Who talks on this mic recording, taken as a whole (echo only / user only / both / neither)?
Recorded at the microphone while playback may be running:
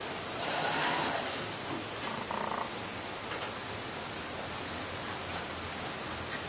neither